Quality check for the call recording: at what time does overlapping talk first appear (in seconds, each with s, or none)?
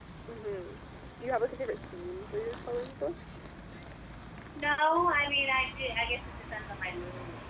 none